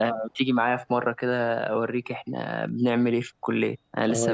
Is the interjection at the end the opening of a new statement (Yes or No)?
Yes